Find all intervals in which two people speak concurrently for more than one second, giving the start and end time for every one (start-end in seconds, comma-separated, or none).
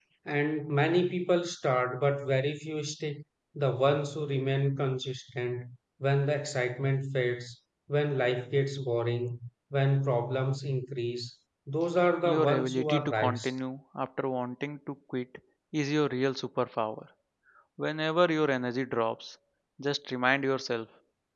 12.2-13.5